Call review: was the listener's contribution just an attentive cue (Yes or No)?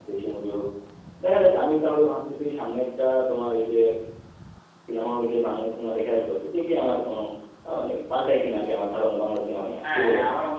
No